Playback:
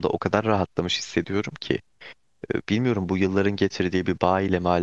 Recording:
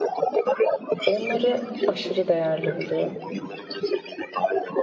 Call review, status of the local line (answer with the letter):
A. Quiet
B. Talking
B